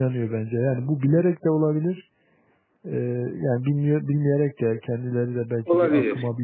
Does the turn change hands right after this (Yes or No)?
No